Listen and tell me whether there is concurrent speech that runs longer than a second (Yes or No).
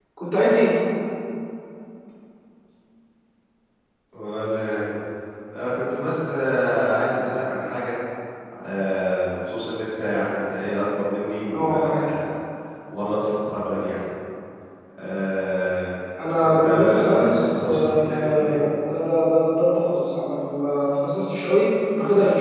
Yes